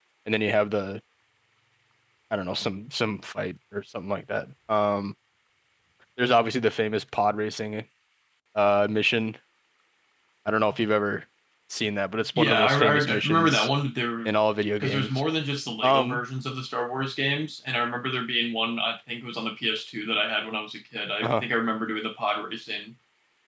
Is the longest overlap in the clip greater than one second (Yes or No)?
Yes